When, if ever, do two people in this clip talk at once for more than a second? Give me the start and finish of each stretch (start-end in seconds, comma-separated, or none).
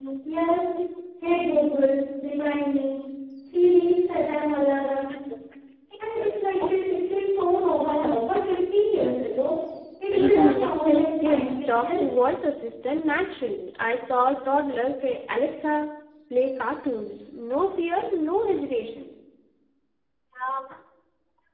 10.1-12.0